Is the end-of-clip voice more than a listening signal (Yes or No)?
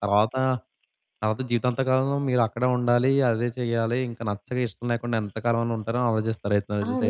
Yes